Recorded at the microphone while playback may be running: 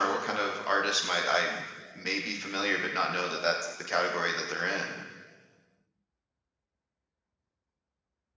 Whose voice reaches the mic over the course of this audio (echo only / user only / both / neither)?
echo only